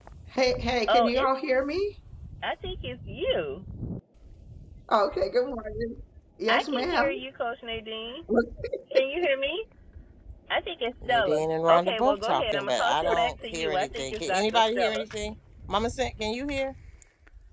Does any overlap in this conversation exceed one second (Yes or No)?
Yes